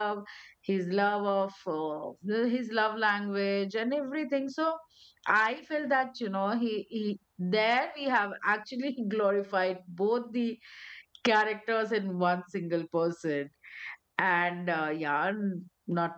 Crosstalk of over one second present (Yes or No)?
No